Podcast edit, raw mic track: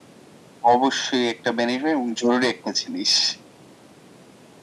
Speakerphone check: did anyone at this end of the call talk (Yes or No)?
No